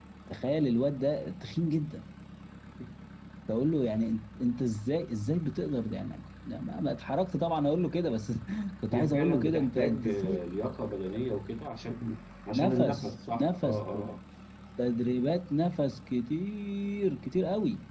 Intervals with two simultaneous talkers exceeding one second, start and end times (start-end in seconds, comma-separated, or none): 8.9-10.4, 12.5-13.8